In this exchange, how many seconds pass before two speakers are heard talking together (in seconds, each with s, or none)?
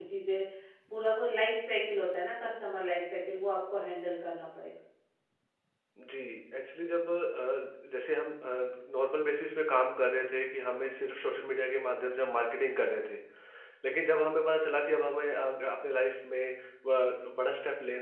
none